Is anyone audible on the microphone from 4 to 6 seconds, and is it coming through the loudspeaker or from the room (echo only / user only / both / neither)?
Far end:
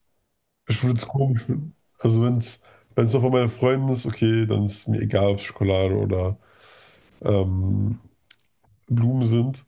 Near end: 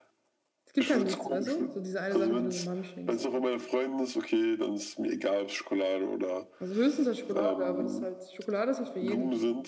echo only